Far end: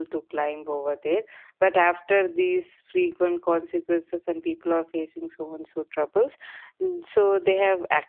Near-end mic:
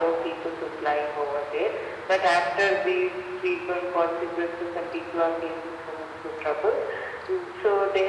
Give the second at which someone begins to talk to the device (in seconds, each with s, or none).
none